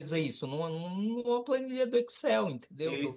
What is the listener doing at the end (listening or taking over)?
taking over